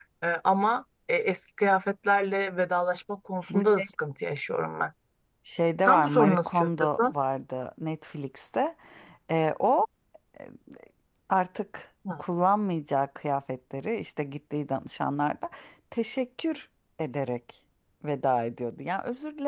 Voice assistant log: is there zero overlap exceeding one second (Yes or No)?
No